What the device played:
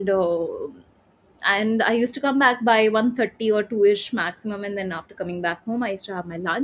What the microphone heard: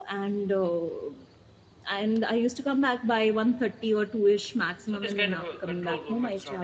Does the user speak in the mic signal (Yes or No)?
Yes